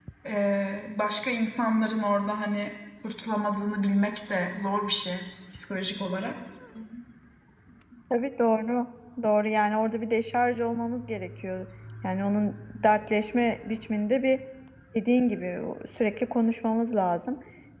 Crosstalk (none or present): none